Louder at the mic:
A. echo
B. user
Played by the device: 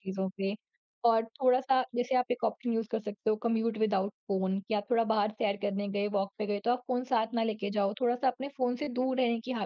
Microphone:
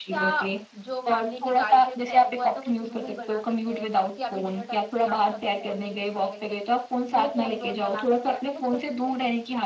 A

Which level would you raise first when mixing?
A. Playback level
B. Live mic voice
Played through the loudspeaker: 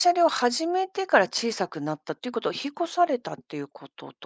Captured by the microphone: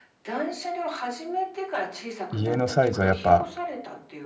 A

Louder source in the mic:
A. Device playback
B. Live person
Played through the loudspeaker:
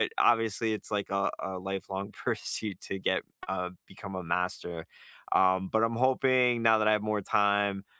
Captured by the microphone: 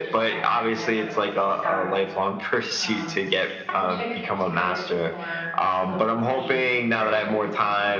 A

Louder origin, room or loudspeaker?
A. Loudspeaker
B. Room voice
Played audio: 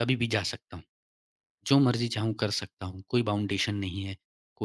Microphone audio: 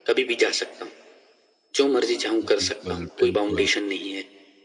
A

